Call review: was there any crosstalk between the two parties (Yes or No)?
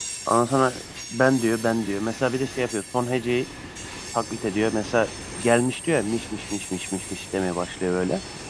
No